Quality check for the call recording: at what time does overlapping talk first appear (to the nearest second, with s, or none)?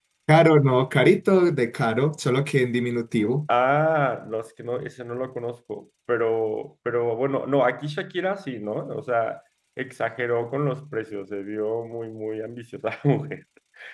none